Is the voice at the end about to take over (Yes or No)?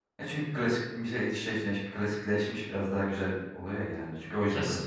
Yes